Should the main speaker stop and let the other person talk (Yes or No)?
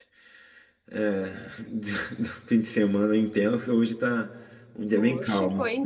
Yes